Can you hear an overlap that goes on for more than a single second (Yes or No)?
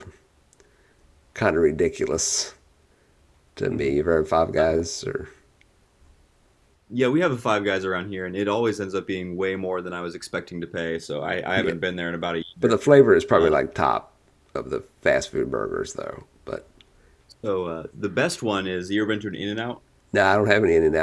No